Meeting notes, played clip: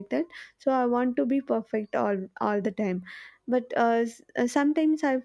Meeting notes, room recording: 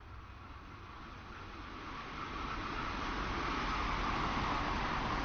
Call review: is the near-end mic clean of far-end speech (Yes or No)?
Yes